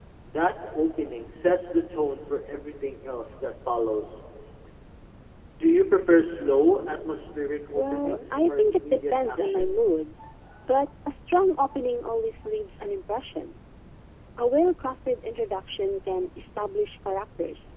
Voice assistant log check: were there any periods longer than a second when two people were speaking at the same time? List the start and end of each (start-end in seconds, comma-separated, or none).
7.7-9.8